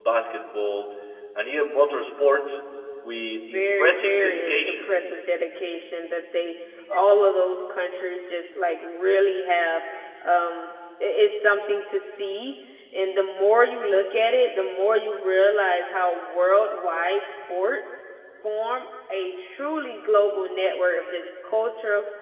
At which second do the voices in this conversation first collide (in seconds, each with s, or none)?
3.4 s